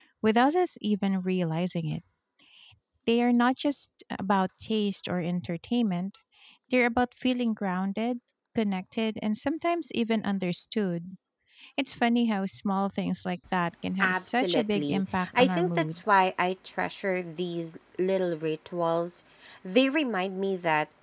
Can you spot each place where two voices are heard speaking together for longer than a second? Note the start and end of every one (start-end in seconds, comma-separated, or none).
14.0-16.0